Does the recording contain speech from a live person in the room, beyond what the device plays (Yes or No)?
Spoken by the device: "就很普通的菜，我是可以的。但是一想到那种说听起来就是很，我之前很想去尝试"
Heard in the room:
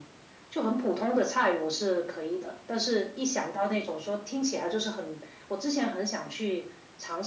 No